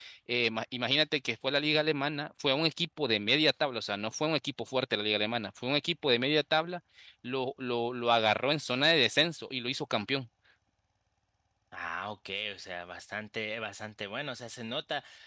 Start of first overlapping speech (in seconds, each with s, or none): none